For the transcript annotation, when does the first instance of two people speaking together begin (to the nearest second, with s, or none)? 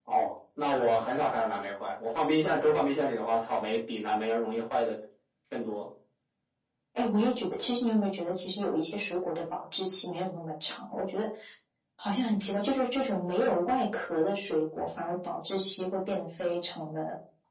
none